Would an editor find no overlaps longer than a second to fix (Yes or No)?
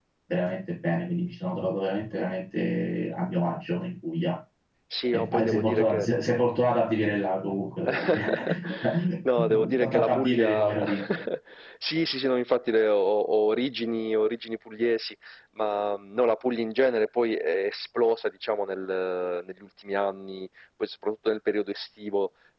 No